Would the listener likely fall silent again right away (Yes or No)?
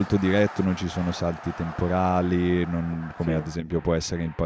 Yes